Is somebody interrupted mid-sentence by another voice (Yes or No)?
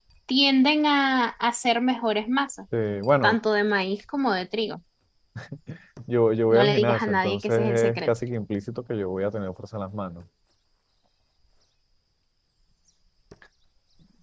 Yes